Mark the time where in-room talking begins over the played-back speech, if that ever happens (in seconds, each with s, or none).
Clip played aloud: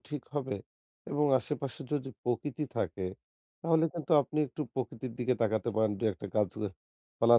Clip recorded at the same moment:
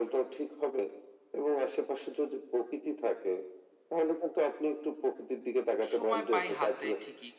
5.8 s